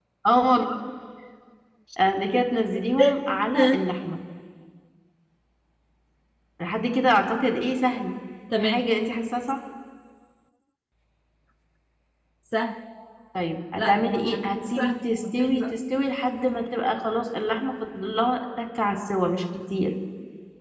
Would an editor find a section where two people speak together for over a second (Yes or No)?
Yes